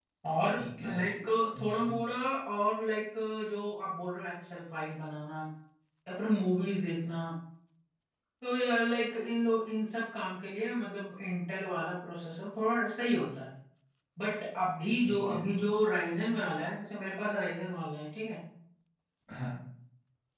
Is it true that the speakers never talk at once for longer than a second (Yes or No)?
Yes